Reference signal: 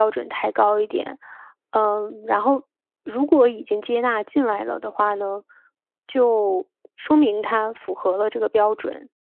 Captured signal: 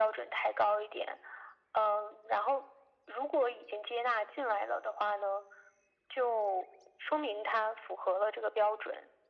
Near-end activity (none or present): none